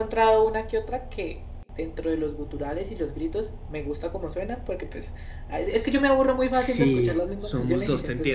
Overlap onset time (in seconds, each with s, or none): 6.5 s